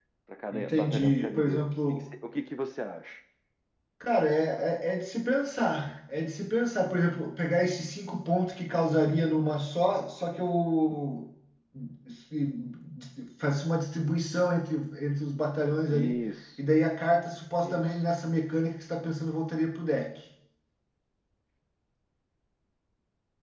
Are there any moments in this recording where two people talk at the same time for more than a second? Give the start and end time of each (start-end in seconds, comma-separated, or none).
0.5-2.0